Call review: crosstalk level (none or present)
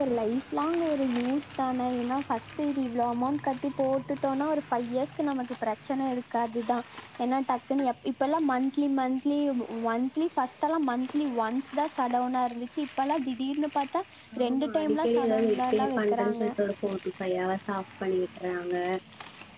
present